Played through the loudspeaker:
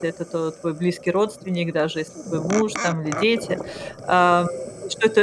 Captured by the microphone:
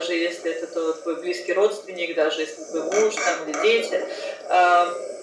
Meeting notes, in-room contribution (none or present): none